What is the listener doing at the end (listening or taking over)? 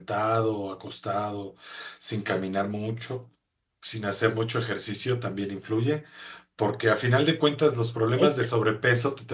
listening